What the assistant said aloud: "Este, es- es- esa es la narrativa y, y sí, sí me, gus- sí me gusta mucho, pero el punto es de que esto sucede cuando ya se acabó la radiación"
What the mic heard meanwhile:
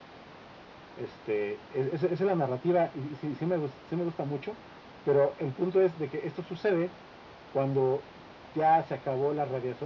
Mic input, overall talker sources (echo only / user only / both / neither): echo only